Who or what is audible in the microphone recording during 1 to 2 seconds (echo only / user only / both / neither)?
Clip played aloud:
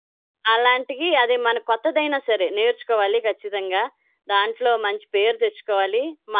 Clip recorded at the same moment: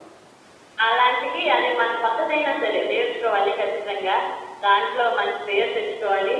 echo only